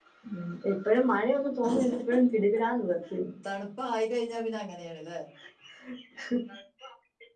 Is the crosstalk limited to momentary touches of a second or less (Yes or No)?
Yes